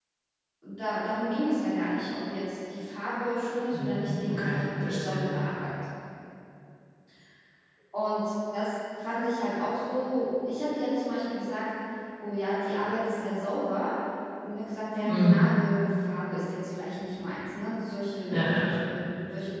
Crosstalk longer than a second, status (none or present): present